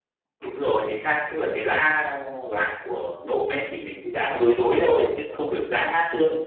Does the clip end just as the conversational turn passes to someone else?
No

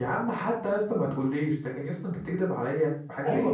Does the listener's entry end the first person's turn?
Yes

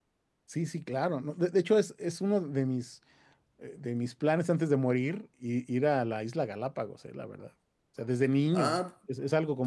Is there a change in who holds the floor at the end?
No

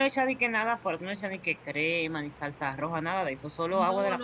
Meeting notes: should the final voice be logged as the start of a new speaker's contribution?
Yes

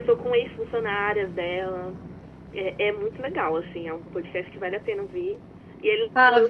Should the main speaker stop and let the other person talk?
No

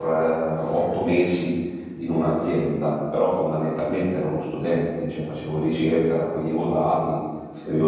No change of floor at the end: Yes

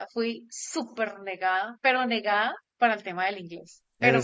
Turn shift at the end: No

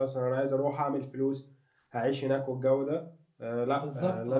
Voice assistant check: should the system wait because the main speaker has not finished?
Yes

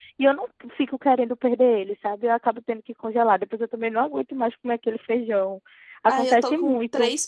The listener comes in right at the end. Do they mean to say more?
Yes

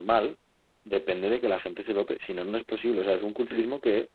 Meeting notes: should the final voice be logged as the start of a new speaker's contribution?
No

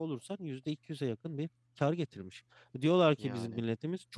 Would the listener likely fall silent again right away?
Yes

